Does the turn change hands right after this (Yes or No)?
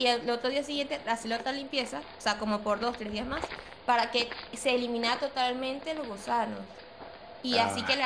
No